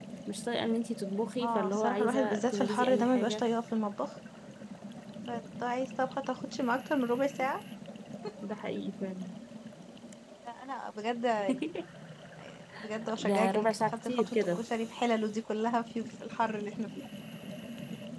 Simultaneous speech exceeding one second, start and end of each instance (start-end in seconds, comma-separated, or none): 1.4-3.5, 13.2-14.6